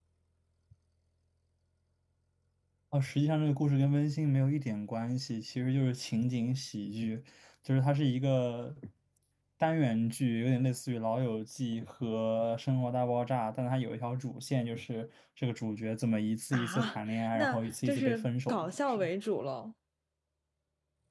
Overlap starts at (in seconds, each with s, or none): 16.5 s